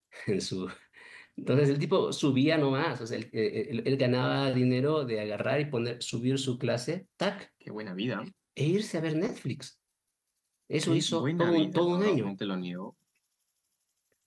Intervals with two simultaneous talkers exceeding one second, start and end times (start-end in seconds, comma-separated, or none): 10.8-12.2